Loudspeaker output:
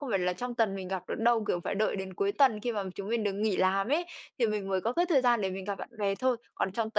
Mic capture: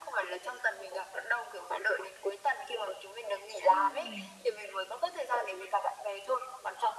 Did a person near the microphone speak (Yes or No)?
Yes